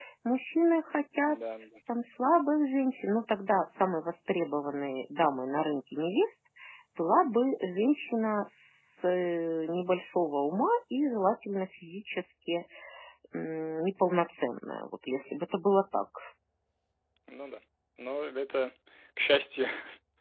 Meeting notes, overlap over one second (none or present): none